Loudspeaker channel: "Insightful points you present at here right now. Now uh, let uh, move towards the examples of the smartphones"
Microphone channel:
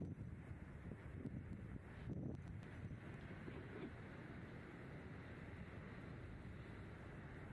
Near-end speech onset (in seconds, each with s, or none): none